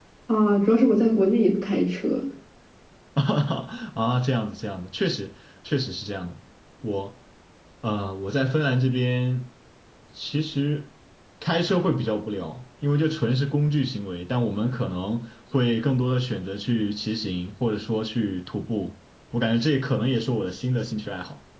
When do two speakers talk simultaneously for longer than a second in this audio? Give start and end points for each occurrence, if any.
none

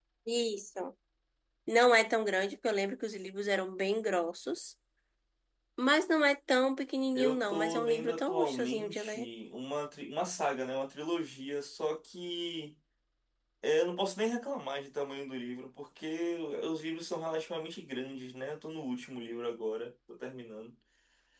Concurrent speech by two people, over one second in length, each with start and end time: 7.2-9.3

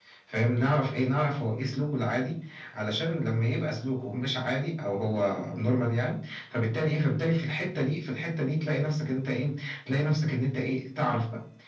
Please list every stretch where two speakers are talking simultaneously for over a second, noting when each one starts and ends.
none

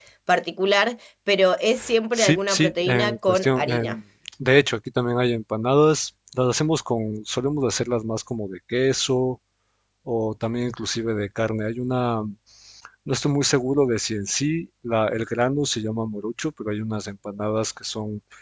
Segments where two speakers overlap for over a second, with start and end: 2.1-4.0

